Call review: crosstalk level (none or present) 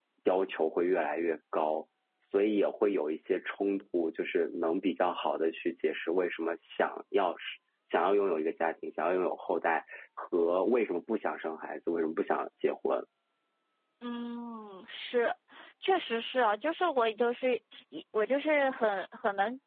none